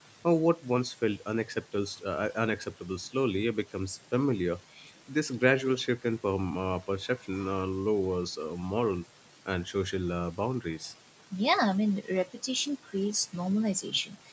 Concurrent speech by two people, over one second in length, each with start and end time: none

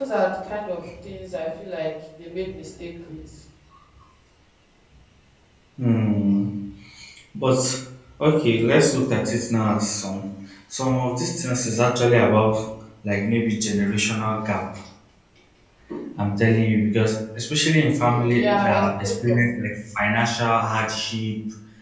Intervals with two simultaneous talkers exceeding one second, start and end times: 17.9-19.4

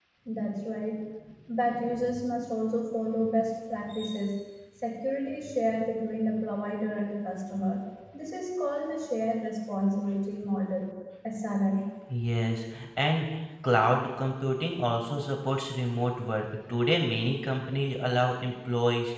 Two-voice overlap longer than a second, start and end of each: none

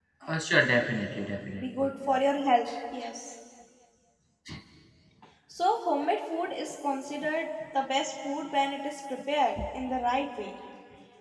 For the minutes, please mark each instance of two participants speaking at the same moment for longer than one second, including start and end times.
none

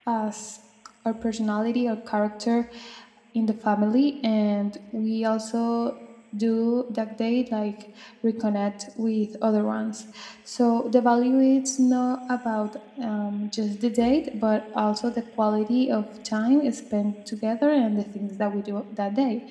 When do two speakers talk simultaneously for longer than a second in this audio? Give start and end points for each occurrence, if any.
none

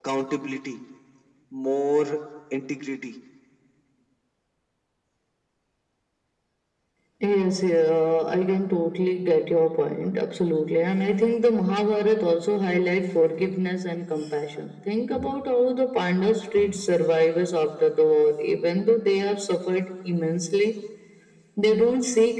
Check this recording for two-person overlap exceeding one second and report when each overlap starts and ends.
none

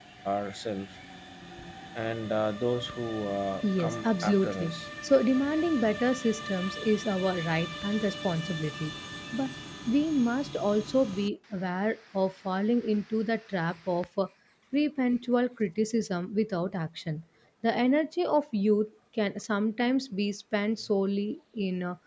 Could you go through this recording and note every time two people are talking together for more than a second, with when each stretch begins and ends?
3.6-4.8

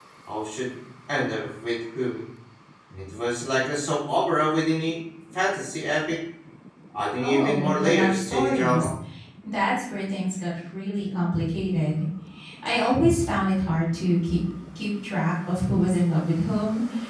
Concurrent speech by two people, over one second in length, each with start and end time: 7.2-8.9

